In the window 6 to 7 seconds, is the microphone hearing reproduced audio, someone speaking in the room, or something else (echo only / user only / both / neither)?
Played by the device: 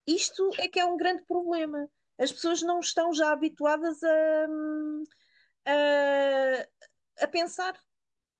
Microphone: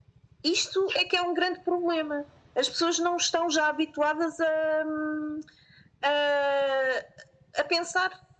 echo only